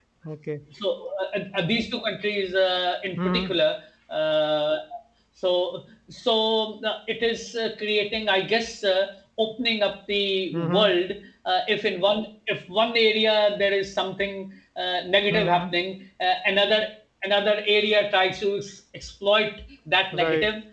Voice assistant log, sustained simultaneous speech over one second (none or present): none